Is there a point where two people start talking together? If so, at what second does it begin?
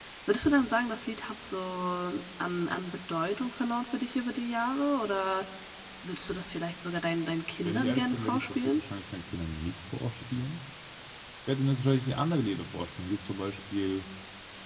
7.6 s

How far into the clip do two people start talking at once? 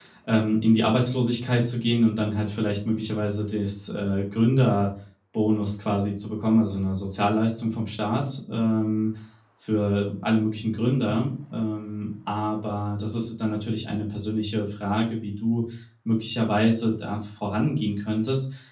none

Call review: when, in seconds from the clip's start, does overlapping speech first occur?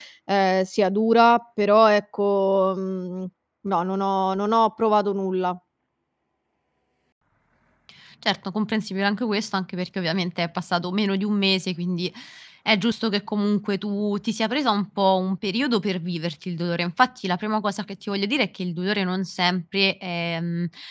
none

